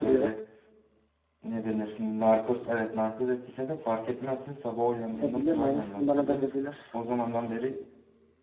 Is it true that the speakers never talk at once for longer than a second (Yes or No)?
No